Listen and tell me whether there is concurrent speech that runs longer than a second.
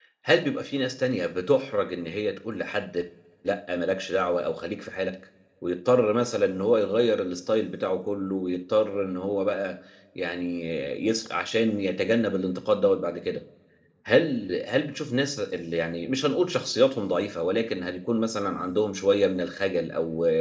No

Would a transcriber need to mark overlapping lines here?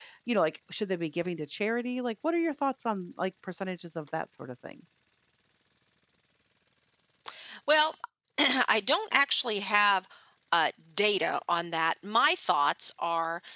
No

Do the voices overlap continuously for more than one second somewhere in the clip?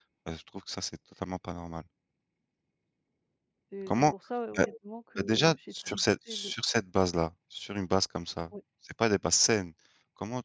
Yes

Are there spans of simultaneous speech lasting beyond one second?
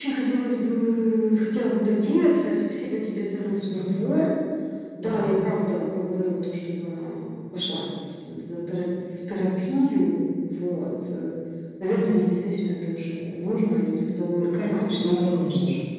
Yes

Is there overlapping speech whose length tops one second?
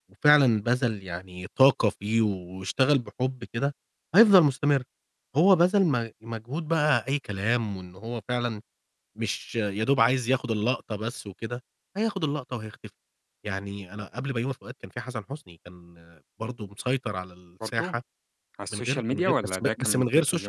Yes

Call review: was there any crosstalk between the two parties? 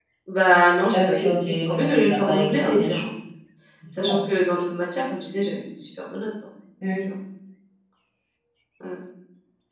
Yes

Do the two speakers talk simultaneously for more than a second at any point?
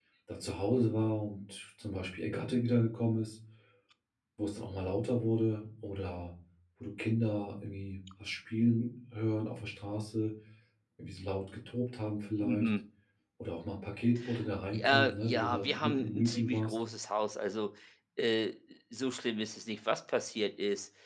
Yes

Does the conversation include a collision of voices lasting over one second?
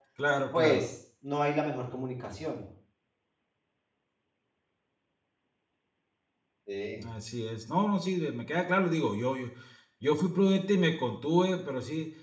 No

